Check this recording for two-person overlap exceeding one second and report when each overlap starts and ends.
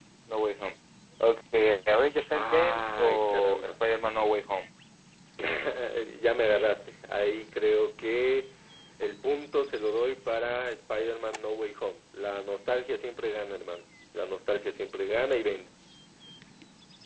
2.4-3.7

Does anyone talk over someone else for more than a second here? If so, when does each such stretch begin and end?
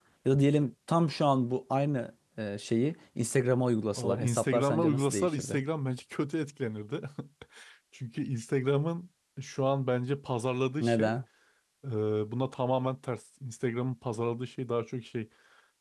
3.9-5.6

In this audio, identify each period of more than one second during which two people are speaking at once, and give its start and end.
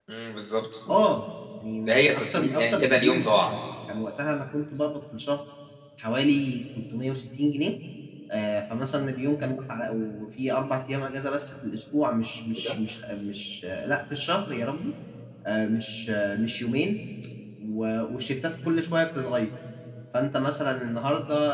1.9-3.5

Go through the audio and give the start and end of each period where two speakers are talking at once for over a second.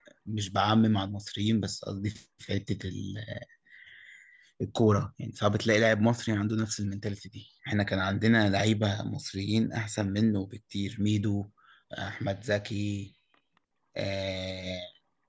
none

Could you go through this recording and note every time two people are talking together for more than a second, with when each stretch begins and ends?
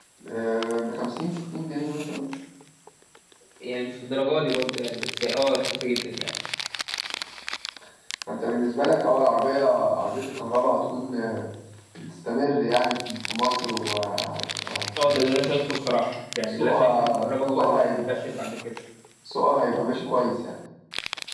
16.5-18.2

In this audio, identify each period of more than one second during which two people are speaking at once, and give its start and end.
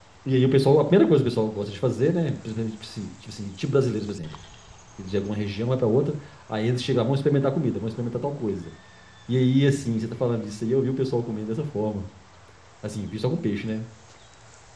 none

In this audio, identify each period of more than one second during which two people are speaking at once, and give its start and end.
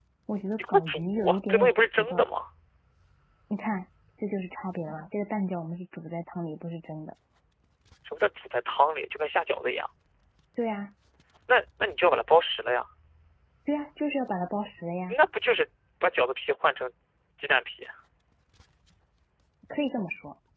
0.6-2.2

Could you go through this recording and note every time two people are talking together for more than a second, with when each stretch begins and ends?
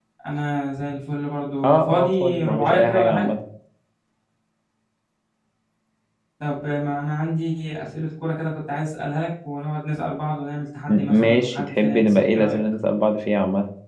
1.6-3.3, 10.9-12.6

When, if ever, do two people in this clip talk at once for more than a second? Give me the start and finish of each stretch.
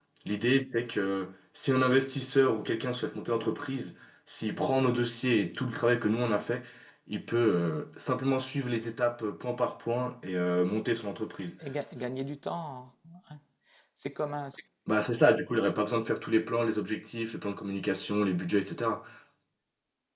none

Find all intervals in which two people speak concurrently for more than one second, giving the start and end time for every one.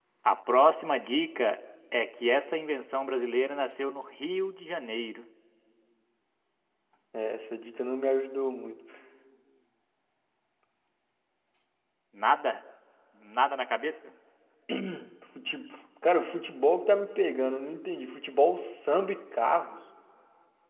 none

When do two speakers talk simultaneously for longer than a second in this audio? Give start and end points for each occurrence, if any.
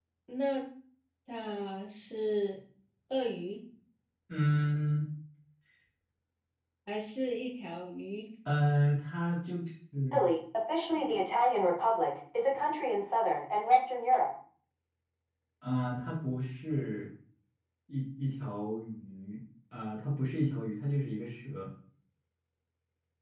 none

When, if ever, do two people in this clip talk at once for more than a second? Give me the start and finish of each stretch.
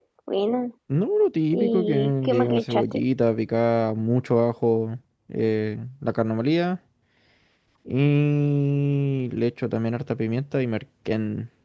1.5-3.0

